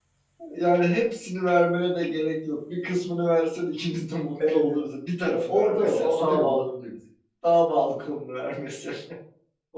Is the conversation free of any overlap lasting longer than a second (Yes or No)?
No